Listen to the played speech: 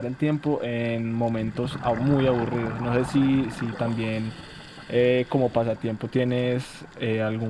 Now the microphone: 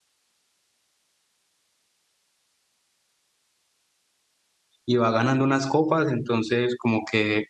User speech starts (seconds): 5 s

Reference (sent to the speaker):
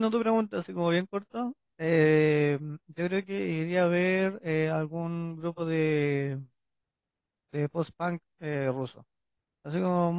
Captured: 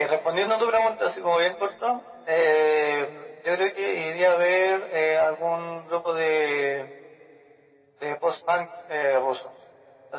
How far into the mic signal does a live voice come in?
none

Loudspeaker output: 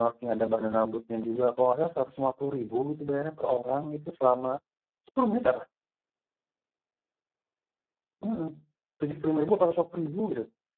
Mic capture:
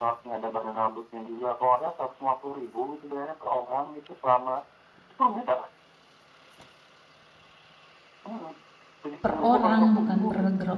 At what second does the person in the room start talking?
9 s

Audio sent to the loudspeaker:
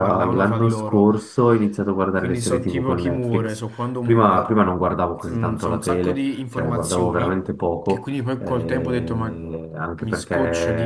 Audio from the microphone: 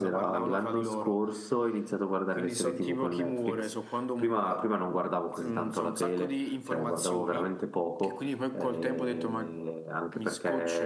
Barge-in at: none

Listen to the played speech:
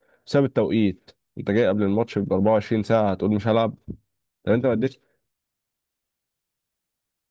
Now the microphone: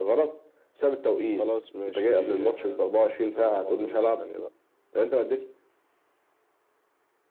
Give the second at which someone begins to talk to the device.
1 s

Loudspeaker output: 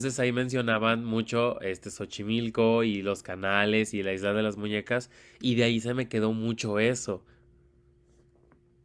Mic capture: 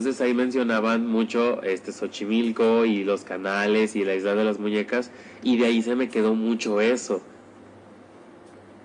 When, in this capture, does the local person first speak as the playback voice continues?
none

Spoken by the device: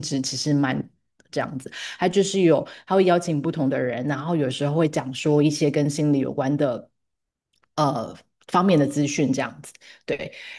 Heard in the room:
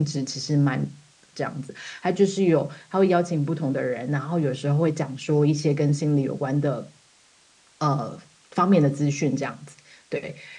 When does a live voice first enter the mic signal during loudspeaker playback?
none

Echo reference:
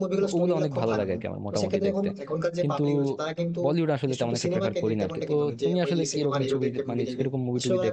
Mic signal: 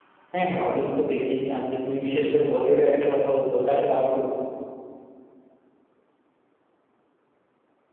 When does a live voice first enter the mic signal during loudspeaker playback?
0 s

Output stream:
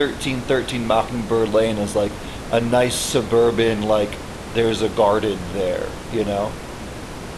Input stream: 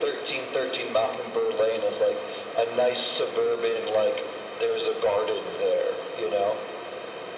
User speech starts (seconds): none

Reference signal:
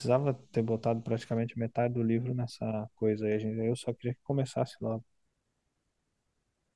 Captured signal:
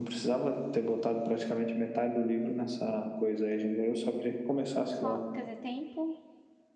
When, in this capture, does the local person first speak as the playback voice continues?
5 s

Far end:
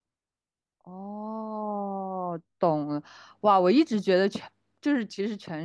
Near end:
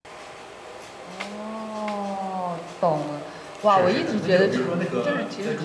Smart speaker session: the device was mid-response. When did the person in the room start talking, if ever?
4 s

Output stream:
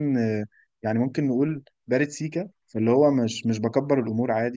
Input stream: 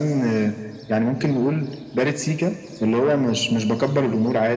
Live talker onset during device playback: none

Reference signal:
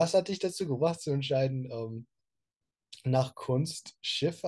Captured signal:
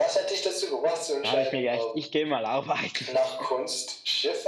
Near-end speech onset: 1 s

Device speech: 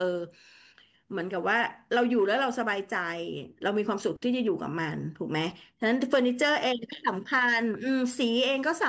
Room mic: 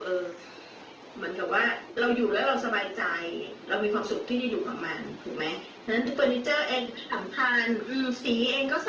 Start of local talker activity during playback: none

